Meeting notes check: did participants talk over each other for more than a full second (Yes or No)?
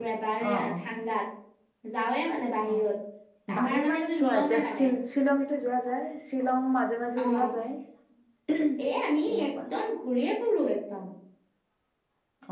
Yes